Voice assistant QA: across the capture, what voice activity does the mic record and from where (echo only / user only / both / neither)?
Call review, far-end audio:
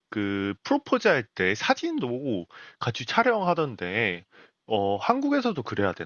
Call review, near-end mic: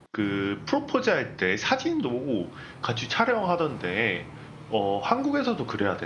echo only